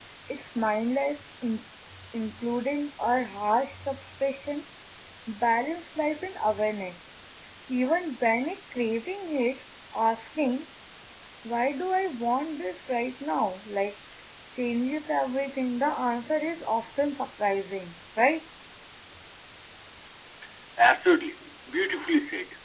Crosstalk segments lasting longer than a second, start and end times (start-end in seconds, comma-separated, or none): none